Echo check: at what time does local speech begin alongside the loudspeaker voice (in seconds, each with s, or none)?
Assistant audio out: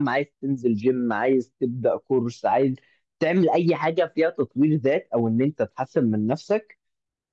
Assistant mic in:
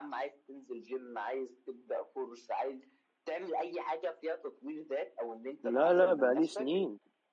5.6 s